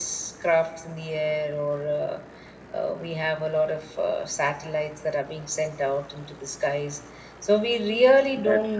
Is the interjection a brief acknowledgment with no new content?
Yes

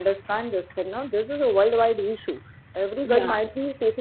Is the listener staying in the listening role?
Yes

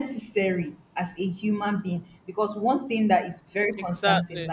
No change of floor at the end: Yes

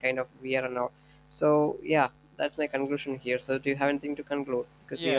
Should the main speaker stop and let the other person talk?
Yes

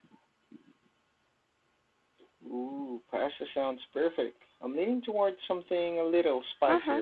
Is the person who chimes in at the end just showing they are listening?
No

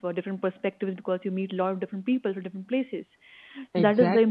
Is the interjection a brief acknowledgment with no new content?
Yes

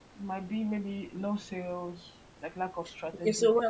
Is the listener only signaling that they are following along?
No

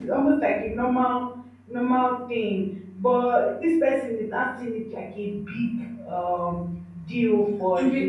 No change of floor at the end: No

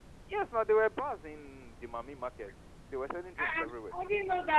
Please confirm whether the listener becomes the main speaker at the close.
Yes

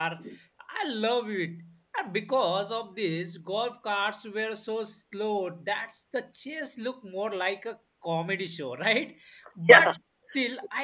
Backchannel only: Yes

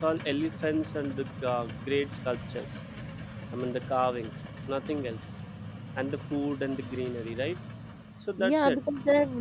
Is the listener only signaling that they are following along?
No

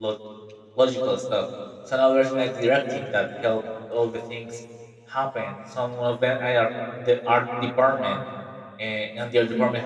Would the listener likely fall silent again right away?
Yes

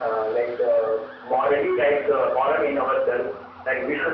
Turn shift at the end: No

